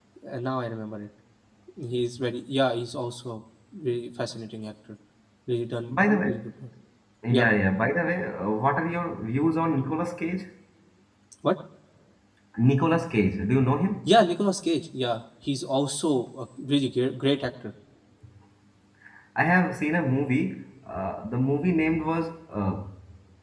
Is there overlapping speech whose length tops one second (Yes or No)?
No